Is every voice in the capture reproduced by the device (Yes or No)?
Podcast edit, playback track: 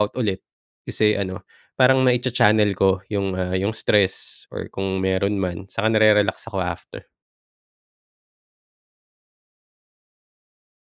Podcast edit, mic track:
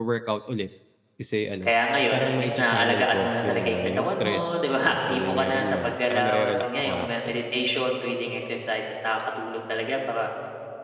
No